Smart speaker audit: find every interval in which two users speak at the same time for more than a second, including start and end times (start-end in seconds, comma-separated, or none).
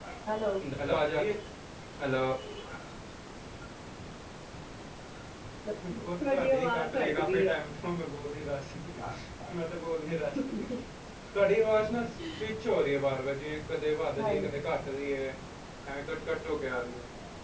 5.9-7.5